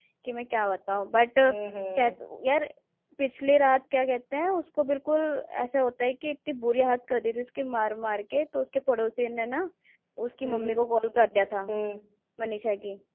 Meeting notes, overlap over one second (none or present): none